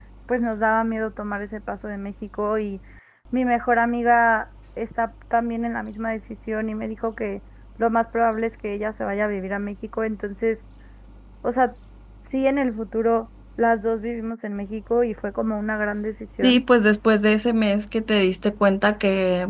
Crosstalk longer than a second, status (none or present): none